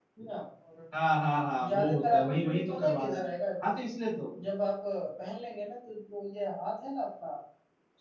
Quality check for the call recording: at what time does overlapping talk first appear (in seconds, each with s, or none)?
1.5 s